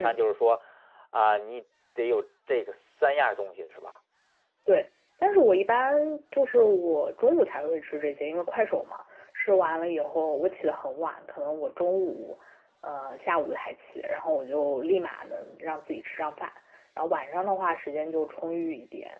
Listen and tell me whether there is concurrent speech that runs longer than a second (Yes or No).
No